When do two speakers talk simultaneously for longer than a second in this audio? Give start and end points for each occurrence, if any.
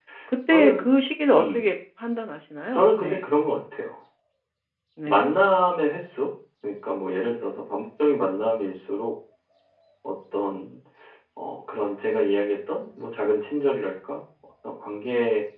none

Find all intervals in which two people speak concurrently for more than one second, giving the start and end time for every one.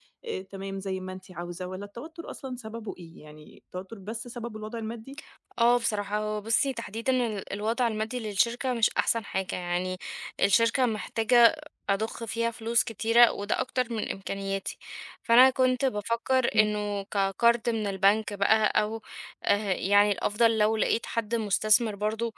none

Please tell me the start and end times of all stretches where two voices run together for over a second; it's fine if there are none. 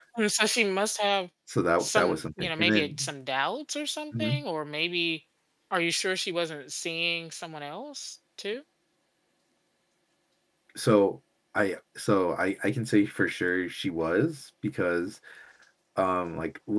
1.8-3.1

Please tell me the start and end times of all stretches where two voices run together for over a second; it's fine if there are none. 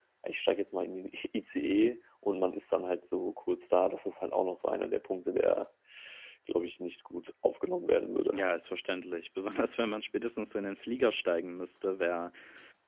none

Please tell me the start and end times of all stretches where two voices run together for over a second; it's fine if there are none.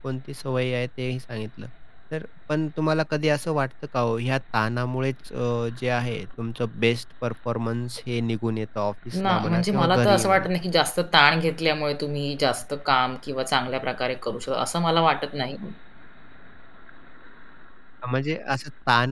9.2-10.5

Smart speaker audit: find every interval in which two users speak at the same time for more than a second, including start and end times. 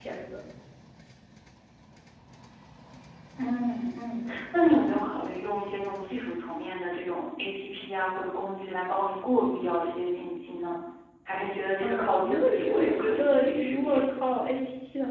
11.8-14.0

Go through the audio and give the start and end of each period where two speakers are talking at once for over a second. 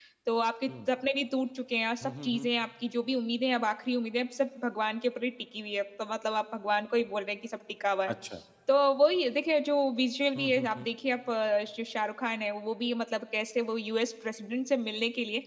none

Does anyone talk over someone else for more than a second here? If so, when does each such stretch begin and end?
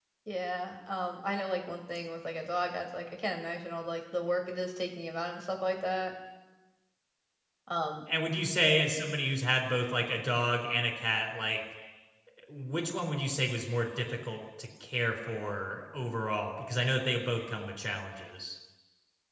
none

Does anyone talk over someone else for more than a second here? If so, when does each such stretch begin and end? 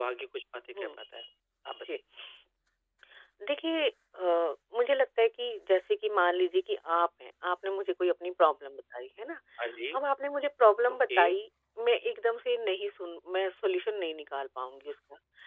none

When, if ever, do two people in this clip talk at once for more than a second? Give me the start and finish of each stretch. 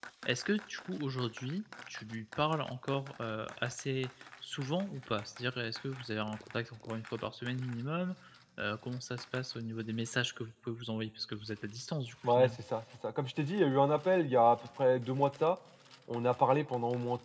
none

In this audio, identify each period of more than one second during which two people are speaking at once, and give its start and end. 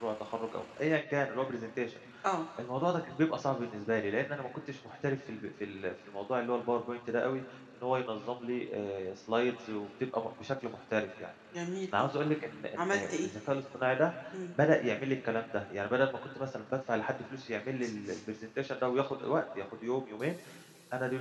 none

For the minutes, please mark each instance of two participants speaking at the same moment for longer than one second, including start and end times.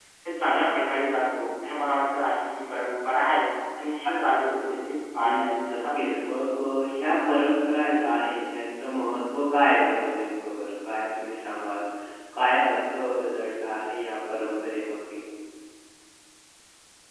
5.2-6.4

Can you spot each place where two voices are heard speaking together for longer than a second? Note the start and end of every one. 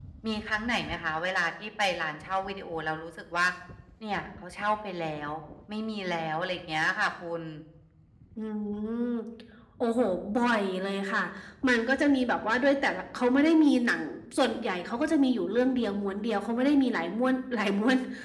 none

